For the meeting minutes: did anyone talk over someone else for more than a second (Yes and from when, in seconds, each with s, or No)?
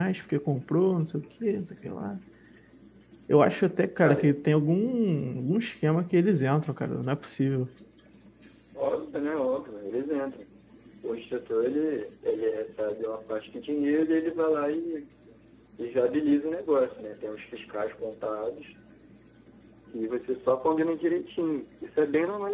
No